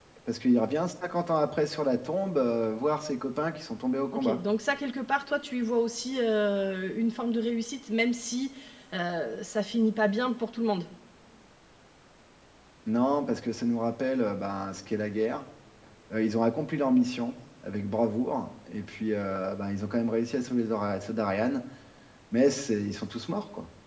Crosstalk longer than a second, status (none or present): none